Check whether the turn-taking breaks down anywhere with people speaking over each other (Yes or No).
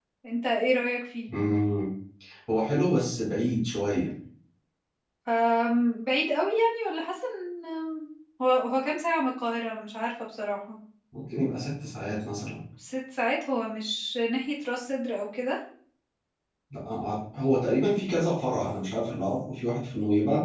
No